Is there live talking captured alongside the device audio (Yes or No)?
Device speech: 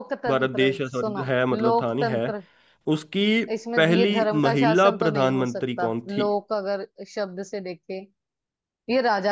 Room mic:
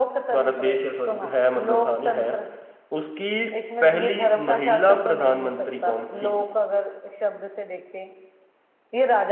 No